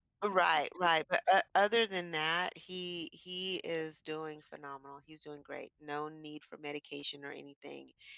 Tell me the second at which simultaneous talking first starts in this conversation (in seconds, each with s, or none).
none